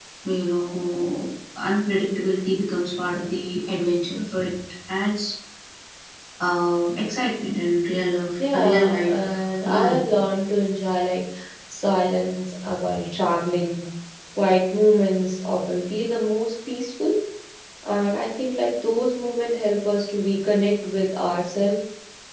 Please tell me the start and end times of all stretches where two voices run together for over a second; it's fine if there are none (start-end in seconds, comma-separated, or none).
8.4-10.1